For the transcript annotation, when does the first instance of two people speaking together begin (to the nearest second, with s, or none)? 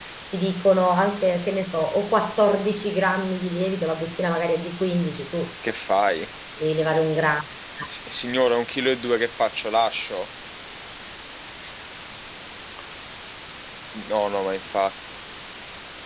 none